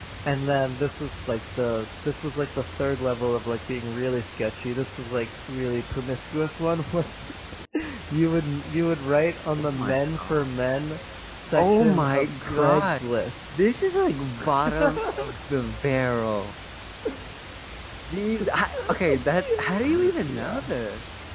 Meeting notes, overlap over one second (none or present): present